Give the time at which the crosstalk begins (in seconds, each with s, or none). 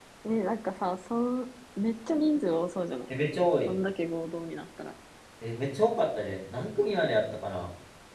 none